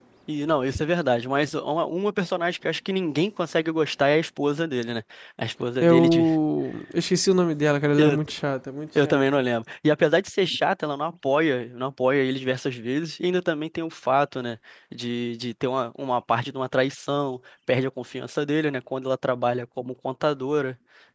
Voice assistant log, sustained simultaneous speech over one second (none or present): none